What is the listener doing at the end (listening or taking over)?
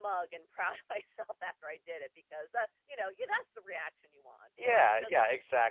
taking over